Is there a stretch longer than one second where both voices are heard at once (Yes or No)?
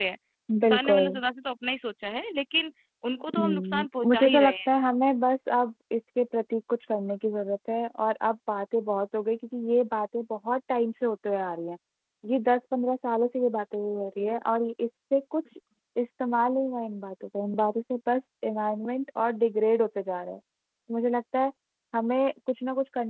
Yes